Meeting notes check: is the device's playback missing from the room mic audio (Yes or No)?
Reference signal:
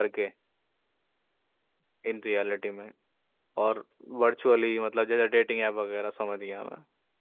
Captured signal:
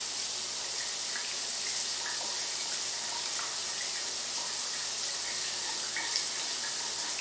Yes